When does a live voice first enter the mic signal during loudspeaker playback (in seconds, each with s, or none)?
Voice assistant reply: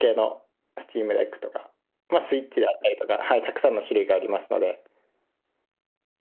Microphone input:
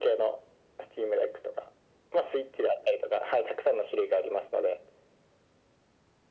none